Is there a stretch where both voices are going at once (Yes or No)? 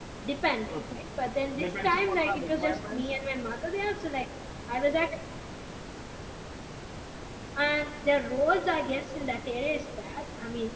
Yes